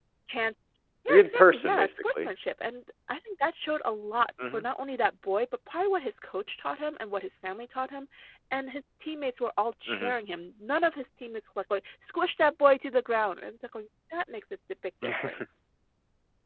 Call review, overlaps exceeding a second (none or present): present